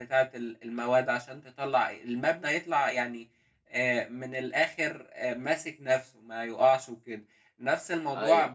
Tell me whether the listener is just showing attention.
Yes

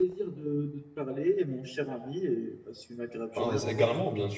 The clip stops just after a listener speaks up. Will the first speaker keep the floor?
No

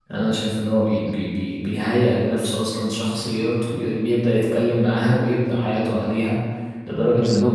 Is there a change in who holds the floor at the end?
No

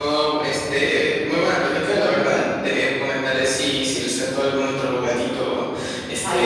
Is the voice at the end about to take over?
No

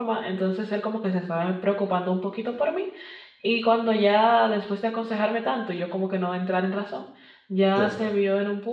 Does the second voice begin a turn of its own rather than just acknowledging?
No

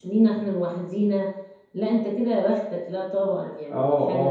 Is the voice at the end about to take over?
Yes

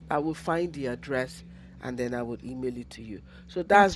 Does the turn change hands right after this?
No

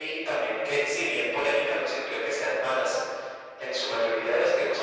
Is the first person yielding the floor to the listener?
No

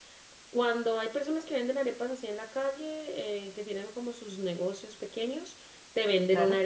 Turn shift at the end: No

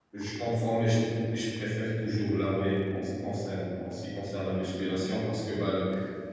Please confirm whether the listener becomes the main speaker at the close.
No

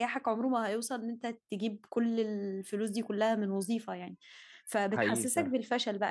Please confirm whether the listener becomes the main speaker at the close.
No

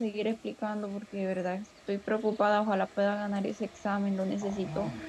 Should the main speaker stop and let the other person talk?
Yes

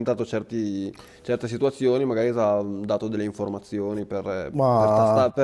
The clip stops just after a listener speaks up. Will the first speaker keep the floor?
Yes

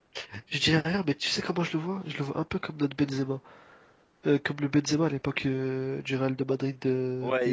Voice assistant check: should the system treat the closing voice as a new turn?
Yes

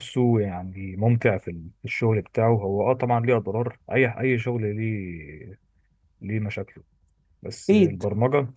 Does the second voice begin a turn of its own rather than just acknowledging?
No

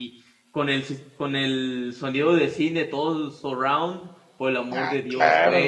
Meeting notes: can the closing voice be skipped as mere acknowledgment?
Yes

